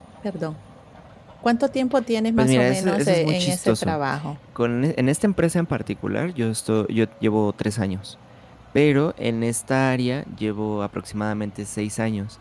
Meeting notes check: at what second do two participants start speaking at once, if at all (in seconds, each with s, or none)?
2.4 s